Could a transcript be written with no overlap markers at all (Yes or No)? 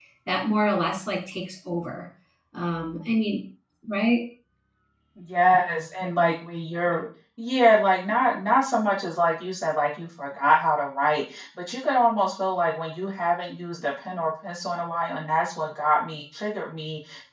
Yes